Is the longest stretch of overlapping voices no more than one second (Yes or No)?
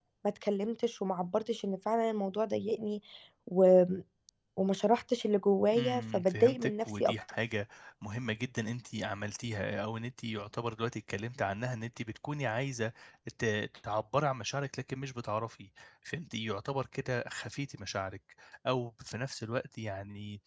No